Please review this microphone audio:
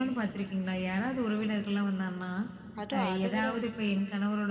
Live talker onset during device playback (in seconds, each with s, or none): 2.8 s